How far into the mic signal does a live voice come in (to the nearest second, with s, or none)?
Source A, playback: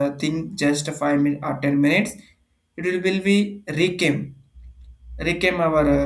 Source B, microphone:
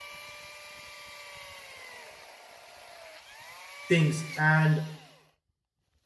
4 s